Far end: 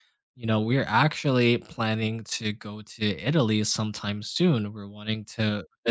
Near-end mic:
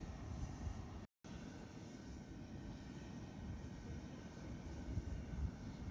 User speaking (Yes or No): No